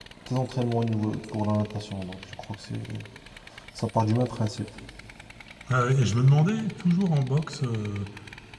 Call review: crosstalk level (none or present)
none